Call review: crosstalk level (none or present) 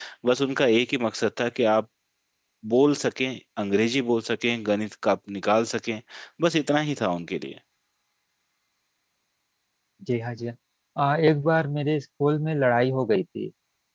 none